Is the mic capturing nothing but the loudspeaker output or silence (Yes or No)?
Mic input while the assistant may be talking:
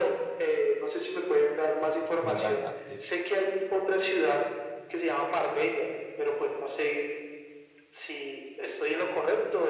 No